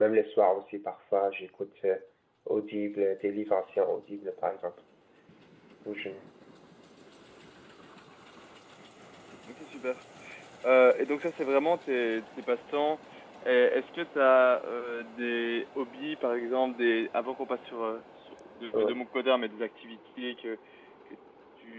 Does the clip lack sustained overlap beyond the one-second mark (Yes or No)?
Yes